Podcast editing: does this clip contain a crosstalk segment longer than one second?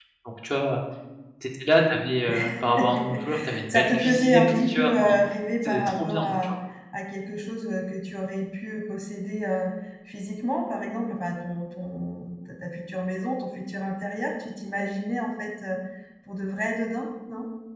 Yes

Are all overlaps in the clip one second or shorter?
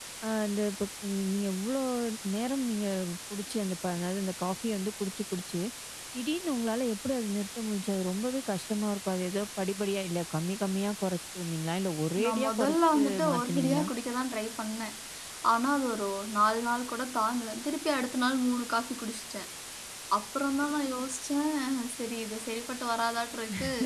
No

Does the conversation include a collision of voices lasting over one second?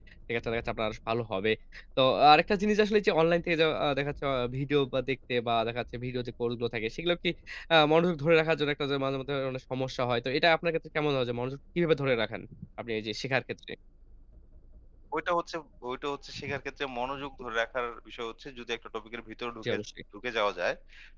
No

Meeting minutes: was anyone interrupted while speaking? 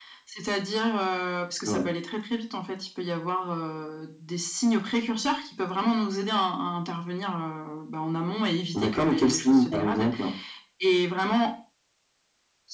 Yes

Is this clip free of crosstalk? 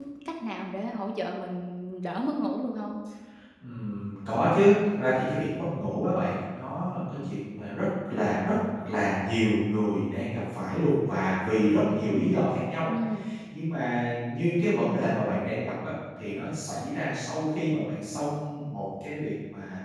Yes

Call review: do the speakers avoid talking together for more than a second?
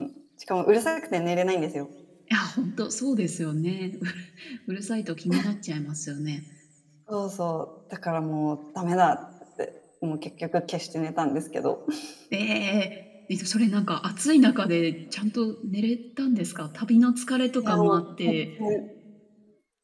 Yes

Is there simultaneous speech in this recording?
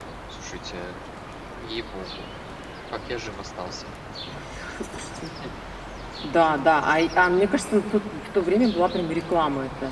No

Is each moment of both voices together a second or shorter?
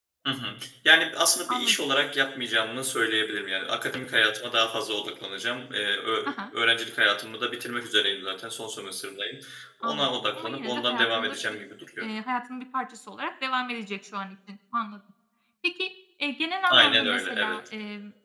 No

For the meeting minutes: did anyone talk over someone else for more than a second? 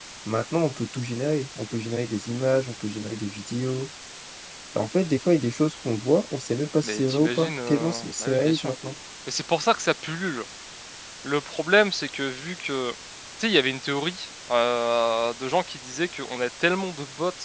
Yes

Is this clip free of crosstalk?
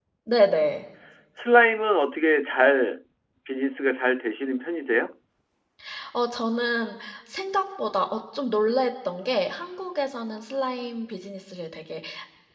Yes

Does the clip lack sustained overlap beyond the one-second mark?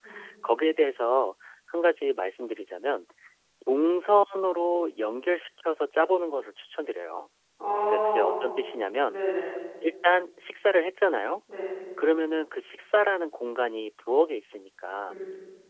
Yes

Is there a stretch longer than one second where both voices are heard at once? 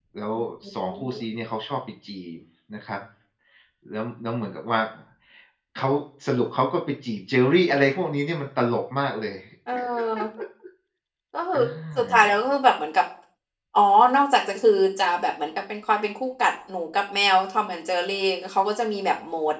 No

